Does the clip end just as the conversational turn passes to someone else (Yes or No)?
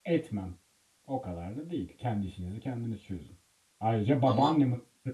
No